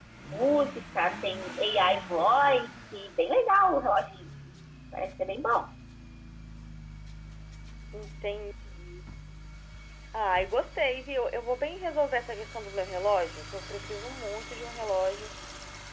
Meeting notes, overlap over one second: none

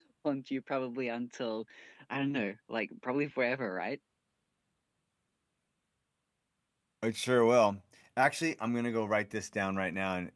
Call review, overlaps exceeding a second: none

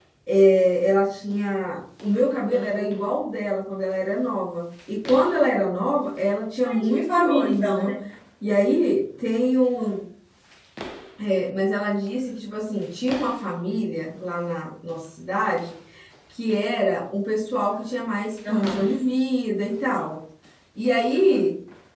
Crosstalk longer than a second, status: present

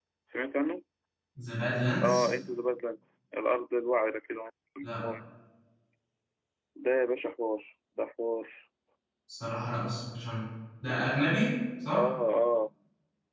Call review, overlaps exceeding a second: none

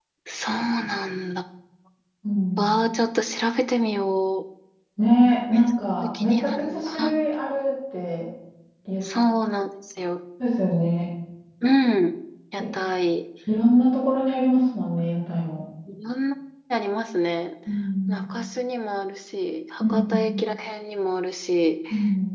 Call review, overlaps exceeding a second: present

